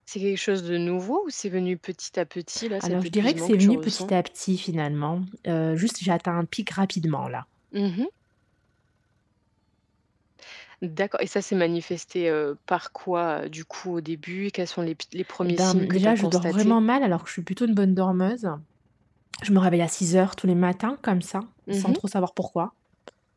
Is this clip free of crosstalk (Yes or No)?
No